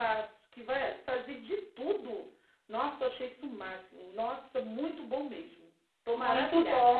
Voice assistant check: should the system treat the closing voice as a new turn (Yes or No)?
Yes